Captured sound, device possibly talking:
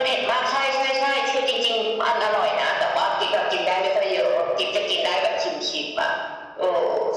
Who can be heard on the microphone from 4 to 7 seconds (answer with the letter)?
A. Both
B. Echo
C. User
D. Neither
B